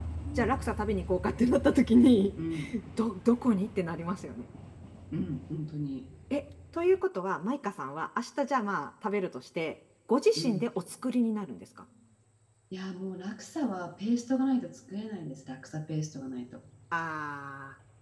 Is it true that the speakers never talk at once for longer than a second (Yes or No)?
Yes